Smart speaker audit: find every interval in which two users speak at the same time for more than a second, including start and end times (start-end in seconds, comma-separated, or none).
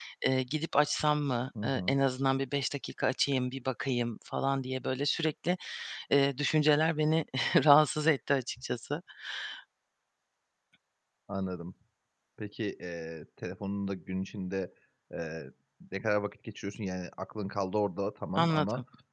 none